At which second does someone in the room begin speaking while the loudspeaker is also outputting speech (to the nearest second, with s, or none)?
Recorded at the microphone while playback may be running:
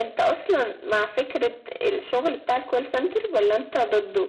none